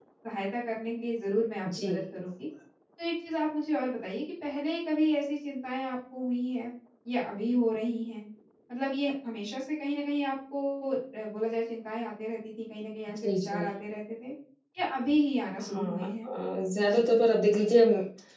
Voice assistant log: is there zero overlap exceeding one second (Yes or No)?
Yes